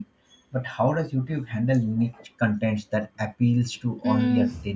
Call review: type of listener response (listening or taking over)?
taking over